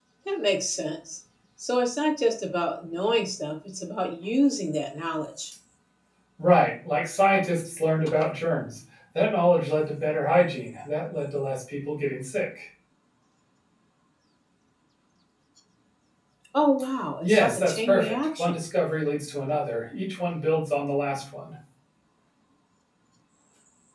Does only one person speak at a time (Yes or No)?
No